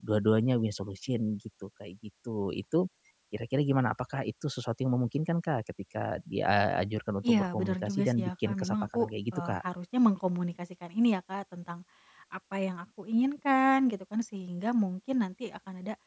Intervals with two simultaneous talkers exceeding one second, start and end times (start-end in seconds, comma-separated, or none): 7.2-9.0